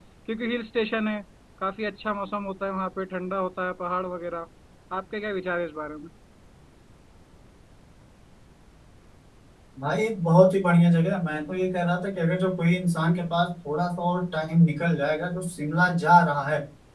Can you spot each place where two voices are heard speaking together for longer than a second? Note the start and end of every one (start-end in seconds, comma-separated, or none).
none